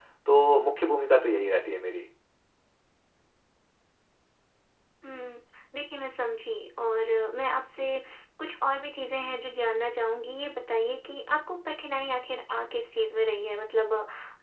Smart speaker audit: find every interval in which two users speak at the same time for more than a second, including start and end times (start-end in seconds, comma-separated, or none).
none